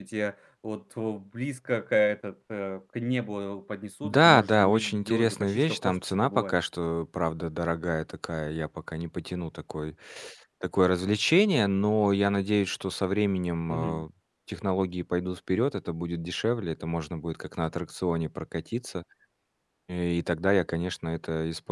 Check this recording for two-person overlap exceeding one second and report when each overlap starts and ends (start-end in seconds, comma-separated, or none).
4.0-6.5